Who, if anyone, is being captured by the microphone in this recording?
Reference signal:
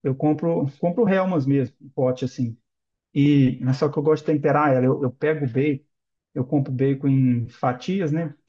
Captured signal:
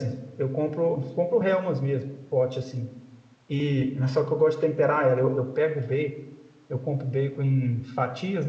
echo only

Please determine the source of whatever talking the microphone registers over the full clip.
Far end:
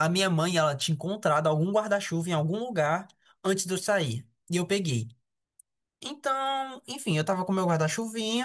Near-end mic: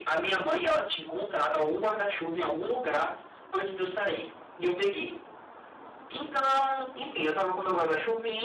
echo only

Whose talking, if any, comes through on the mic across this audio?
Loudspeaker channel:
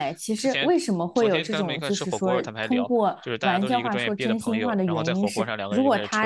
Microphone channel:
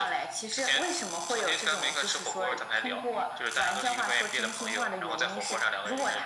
echo only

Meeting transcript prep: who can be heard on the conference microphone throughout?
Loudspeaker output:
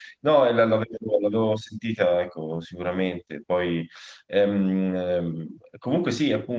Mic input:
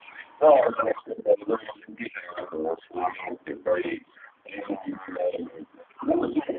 echo only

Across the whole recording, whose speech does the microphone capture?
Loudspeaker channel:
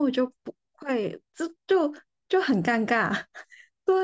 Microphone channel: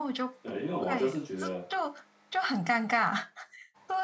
both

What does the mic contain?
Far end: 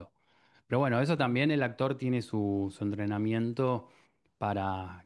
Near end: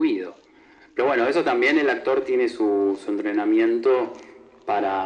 echo only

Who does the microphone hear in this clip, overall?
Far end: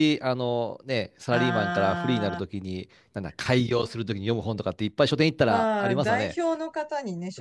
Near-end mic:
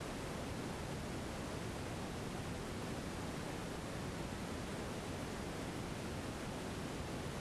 neither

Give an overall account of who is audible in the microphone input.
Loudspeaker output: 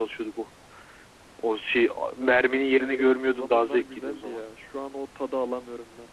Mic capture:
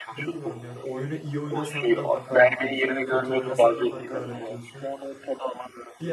both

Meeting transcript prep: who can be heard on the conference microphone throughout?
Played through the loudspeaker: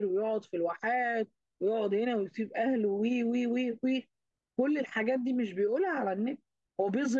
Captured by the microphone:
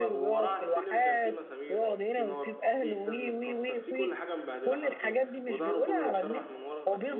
both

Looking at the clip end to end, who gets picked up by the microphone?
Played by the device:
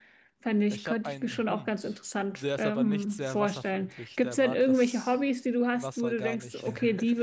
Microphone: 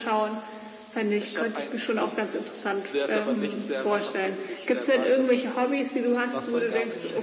both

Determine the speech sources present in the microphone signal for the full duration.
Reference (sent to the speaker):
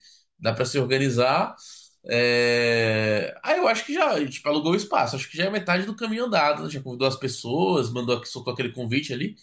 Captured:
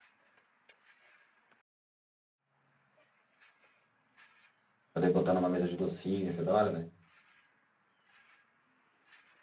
user only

